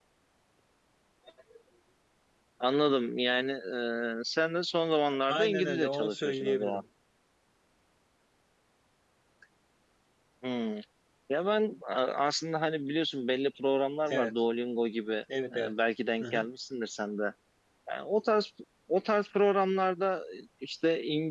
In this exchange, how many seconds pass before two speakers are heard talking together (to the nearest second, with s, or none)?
5 s